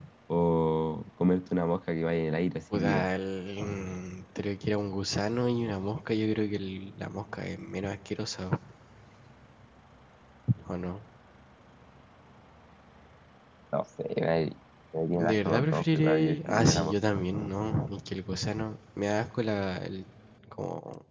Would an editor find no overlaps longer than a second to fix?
No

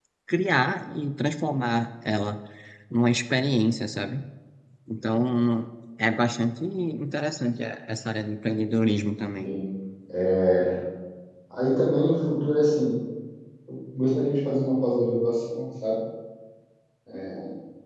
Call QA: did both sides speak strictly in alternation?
Yes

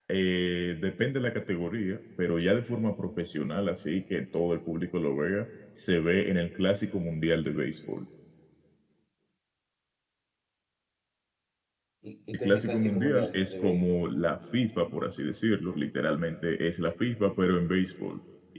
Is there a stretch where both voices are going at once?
Yes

